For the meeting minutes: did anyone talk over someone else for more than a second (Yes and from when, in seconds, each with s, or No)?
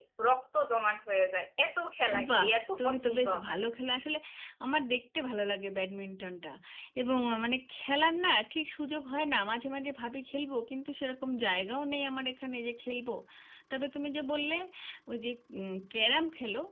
Yes, from 2.1 s